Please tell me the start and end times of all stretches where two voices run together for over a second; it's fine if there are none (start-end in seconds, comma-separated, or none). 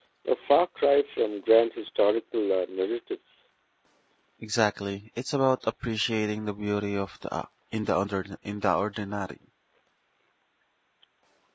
none